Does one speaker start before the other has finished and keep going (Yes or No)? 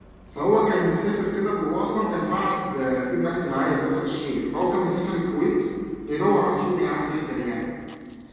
No